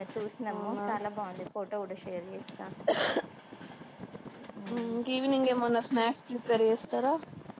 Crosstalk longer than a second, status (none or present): none